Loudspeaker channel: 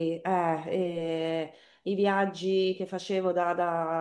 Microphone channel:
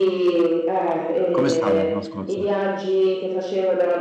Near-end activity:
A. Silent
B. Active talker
B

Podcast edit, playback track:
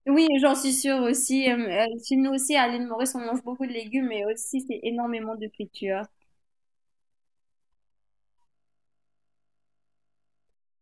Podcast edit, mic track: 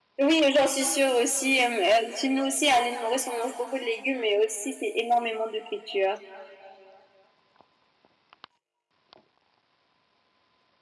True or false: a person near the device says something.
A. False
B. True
A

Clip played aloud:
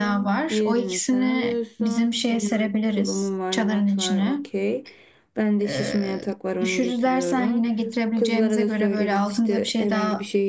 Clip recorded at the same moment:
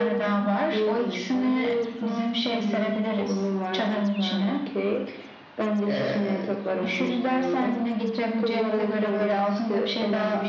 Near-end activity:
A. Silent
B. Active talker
A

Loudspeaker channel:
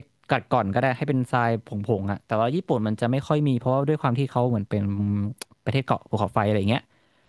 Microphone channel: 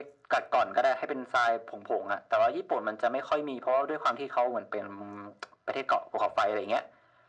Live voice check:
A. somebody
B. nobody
B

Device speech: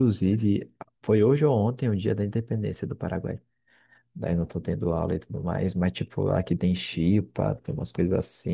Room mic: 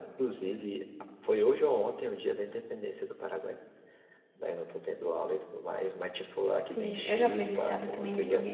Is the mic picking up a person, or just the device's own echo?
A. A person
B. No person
A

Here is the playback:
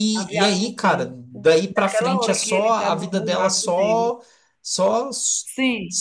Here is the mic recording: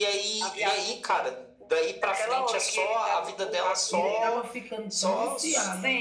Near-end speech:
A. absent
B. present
B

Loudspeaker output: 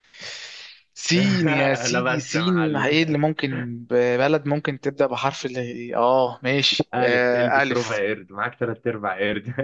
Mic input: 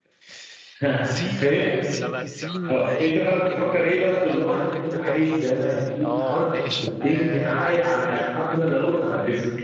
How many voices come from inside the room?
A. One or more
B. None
A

